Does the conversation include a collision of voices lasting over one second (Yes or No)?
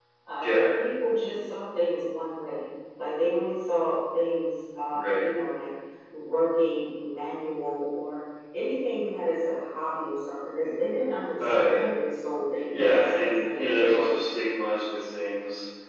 Yes